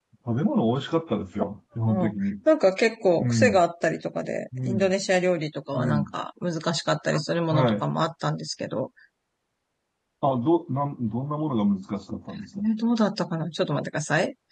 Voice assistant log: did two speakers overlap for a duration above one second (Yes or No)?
No